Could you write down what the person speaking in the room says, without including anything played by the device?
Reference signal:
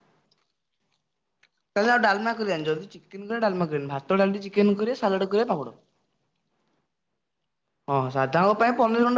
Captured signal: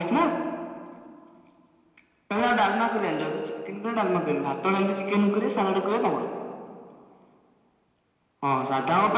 none

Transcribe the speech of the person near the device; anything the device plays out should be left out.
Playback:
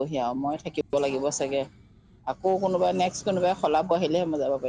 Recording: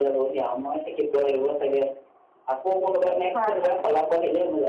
হয় হয়

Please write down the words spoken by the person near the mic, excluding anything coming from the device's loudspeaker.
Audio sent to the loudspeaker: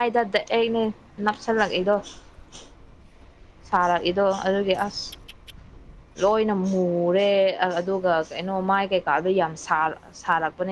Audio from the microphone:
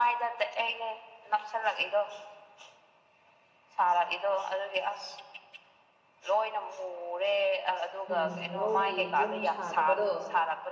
ꯎꯝ ꯂꯧꯒꯤ ꯌꯨꯝ ꯁꯥꯗꯕꯗꯣ

